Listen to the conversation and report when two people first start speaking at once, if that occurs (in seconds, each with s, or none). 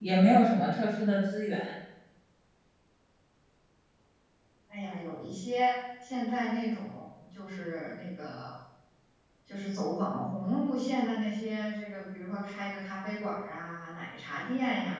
none